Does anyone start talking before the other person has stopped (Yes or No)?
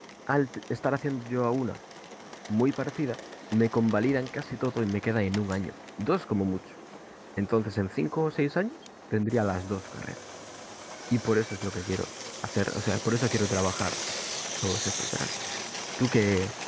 No